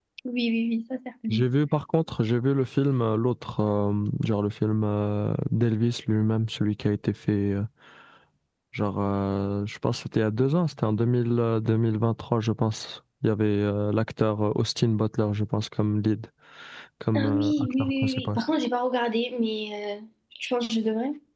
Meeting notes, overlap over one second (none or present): present